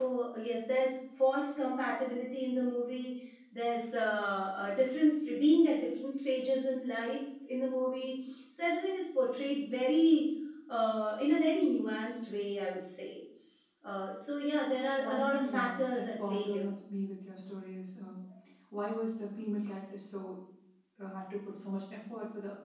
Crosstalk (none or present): present